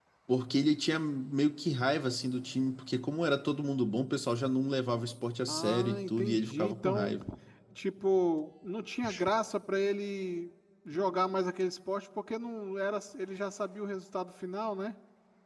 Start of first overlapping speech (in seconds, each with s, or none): 5.5 s